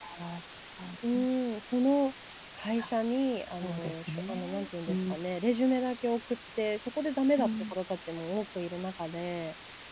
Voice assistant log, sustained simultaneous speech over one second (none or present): present